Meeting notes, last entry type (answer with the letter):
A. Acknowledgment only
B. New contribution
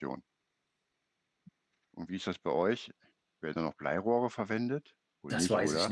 B